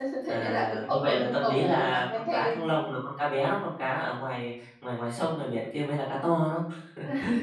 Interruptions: present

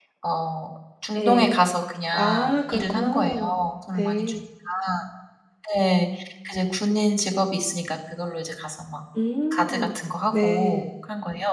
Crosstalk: present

